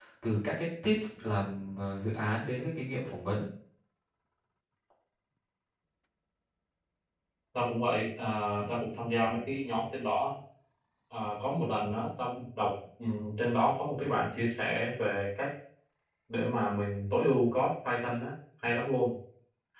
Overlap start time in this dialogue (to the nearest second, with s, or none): none